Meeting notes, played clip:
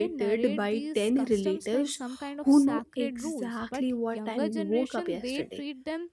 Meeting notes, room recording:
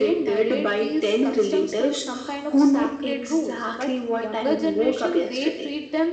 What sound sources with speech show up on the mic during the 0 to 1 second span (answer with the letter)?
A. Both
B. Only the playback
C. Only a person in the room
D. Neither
B